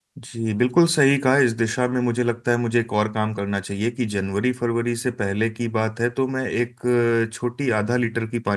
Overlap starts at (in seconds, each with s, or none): none